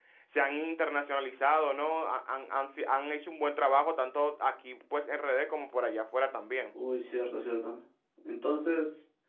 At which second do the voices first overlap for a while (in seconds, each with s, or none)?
none